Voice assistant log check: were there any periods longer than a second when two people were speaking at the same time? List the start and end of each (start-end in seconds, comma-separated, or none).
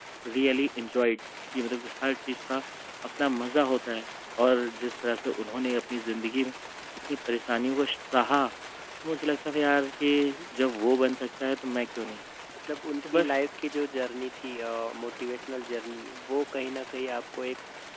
none